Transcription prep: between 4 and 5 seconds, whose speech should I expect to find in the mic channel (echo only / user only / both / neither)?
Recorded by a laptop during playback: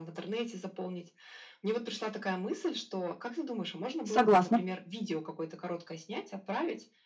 both